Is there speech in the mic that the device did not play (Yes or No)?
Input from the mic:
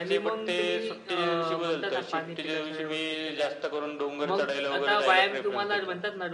Yes